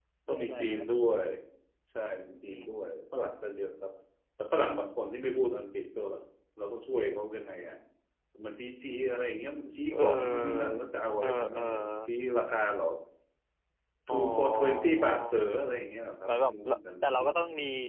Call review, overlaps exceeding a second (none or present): present